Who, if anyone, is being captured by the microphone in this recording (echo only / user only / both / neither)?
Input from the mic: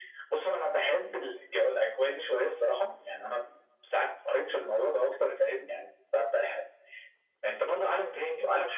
echo only